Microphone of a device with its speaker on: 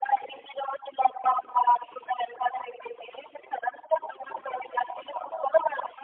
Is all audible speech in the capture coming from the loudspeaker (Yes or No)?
Yes